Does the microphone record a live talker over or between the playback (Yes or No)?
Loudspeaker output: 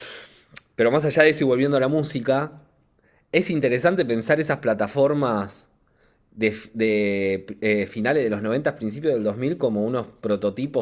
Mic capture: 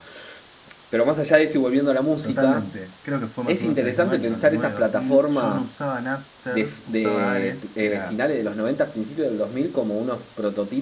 Yes